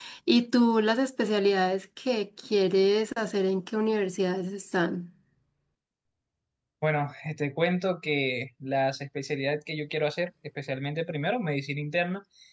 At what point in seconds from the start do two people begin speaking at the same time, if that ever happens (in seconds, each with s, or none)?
none